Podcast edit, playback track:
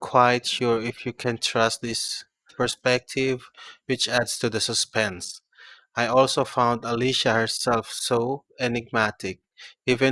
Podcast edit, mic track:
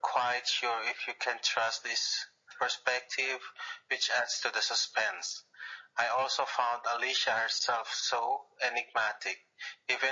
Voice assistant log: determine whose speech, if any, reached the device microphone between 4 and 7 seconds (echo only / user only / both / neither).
echo only